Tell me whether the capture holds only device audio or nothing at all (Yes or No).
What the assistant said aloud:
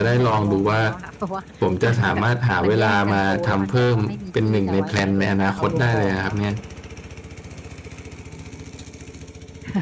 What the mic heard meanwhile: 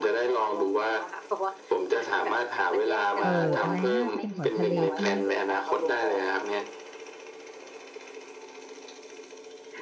No